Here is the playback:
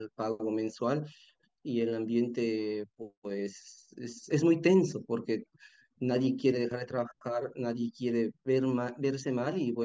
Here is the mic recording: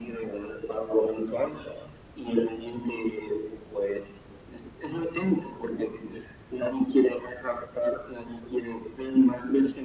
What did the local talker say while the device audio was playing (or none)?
none